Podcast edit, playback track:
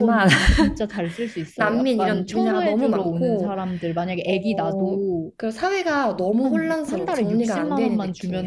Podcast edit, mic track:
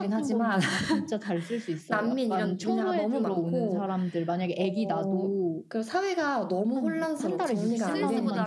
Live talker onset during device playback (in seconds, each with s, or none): 7.5 s